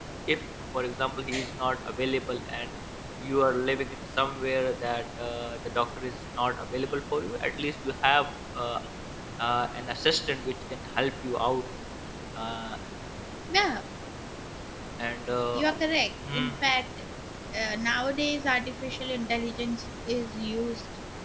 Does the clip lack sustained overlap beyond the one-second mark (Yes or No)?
Yes